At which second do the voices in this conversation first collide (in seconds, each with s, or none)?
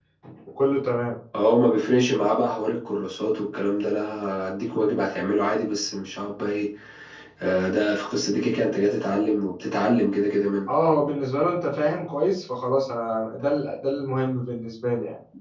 none